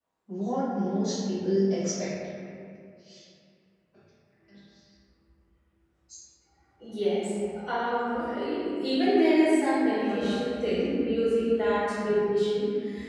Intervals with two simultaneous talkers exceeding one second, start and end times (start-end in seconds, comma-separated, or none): none